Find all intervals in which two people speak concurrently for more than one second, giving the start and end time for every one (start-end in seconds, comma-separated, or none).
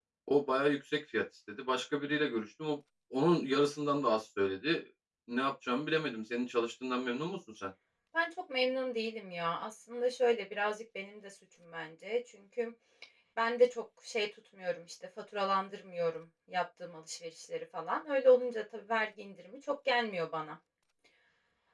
none